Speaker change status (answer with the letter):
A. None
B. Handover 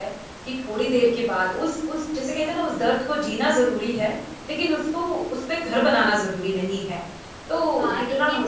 B